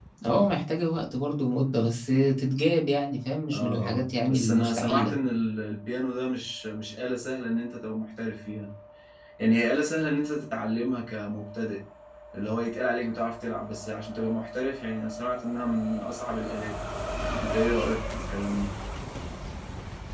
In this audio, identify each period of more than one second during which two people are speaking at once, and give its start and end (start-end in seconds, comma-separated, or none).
3.5-5.1